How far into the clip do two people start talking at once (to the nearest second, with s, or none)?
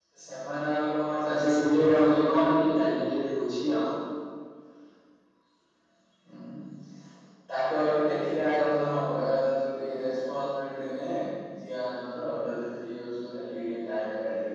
1 s